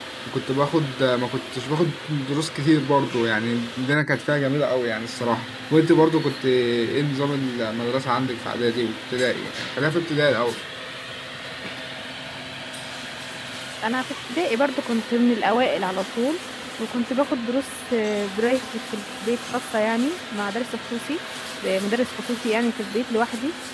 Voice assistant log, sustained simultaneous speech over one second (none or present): none